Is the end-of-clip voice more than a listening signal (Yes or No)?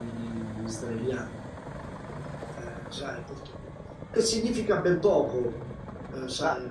No